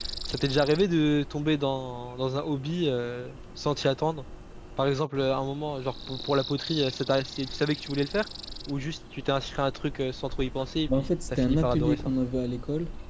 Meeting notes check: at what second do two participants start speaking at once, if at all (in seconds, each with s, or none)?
10.9 s